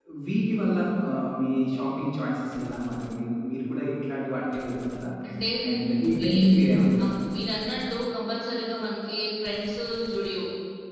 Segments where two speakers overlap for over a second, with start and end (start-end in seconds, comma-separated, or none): none